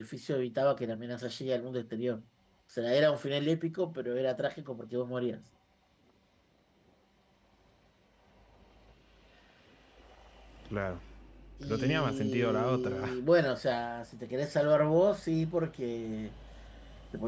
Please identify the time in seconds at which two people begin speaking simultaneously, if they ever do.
11.6 s

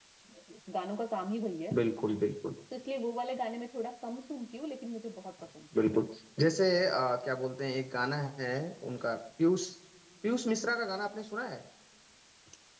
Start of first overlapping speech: none

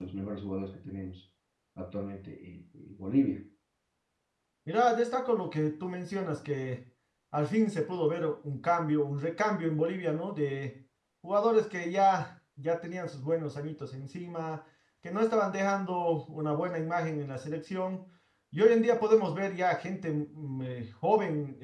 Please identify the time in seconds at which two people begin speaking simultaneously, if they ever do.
none

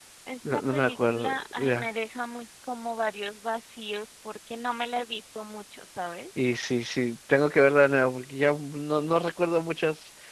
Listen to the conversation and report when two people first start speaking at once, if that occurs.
0.5 s

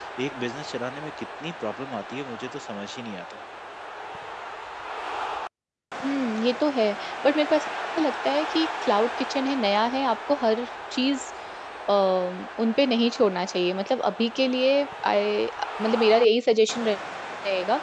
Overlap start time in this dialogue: none

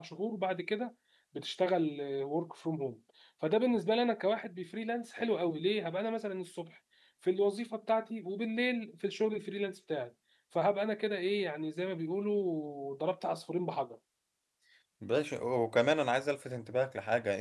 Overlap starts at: none

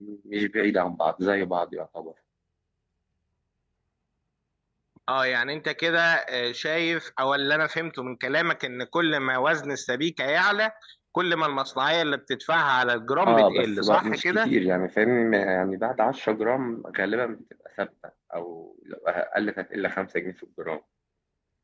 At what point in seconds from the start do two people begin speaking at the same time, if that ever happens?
13.2 s

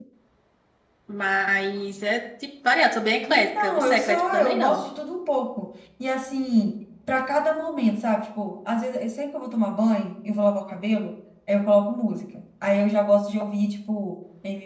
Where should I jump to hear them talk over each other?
3.3 s

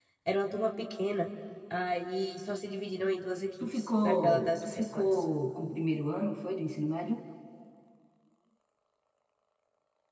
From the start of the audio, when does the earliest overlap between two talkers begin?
3.6 s

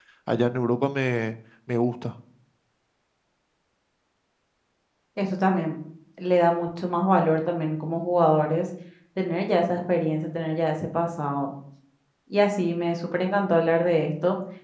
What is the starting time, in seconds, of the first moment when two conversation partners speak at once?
none

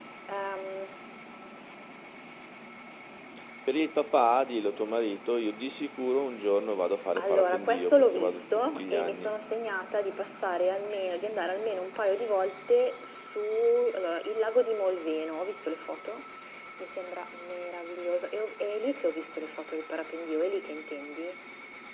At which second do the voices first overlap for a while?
7.2 s

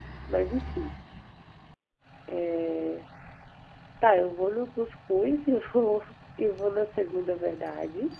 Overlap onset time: none

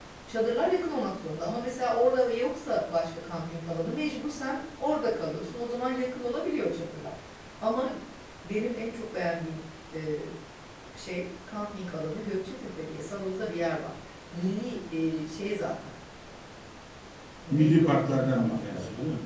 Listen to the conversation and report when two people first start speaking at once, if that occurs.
17.5 s

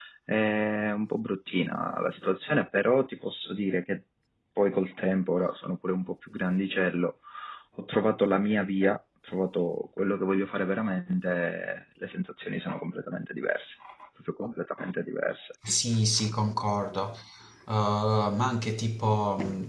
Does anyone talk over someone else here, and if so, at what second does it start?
none

